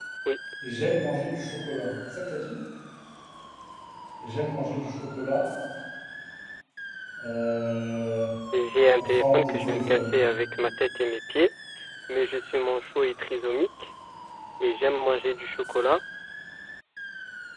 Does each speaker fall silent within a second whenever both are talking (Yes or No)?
No